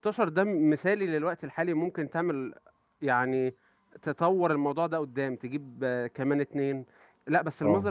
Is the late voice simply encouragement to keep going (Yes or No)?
Yes